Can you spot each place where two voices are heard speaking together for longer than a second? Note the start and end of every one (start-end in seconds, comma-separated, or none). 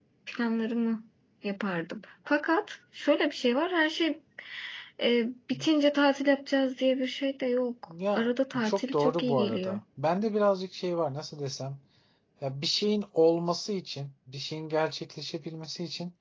8.2-9.8